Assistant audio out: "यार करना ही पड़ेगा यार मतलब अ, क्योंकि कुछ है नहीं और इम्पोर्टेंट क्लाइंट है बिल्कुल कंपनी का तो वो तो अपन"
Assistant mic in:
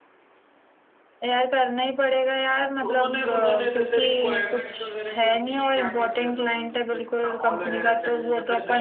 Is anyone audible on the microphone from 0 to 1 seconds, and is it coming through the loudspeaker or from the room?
neither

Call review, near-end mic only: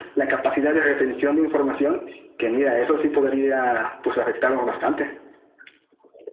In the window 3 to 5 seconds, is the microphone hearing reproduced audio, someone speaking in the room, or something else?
echo only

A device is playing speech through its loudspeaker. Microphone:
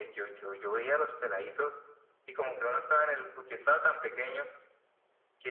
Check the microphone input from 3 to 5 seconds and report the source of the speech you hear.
echo only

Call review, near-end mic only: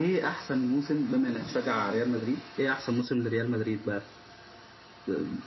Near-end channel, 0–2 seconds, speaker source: both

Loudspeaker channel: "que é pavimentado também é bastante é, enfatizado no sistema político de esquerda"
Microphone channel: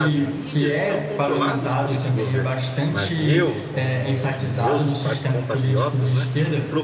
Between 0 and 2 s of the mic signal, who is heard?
both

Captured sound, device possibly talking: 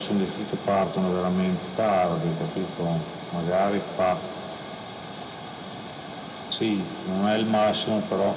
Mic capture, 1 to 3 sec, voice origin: echo only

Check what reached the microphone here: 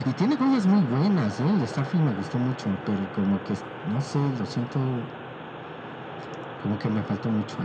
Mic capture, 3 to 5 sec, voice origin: echo only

